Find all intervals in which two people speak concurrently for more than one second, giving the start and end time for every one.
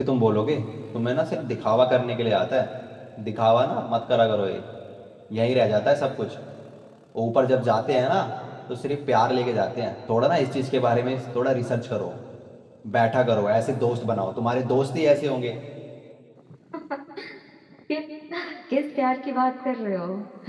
none

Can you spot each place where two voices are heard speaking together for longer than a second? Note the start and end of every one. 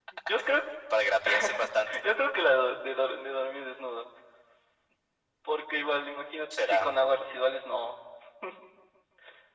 none

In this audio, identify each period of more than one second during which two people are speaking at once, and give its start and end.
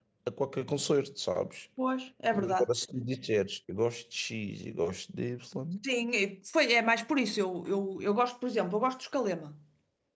none

